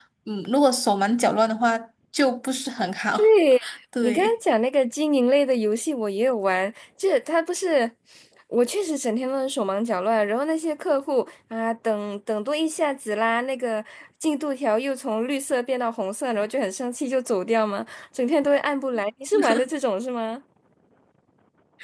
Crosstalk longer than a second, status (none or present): none